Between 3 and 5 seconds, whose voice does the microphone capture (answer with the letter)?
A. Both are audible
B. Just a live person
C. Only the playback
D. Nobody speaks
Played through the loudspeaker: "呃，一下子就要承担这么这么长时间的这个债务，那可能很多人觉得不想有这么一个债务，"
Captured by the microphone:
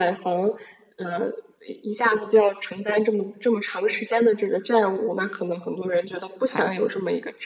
C